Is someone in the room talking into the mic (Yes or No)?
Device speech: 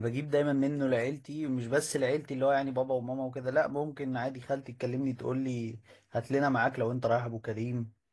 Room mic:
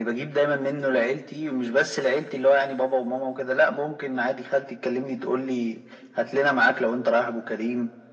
No